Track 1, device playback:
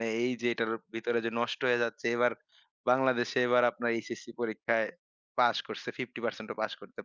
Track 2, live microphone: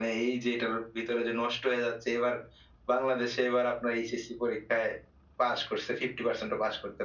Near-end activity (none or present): none